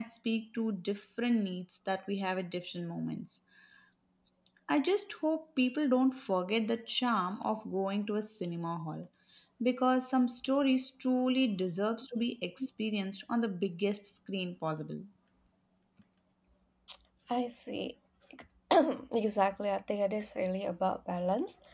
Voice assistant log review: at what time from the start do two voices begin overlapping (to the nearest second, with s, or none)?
none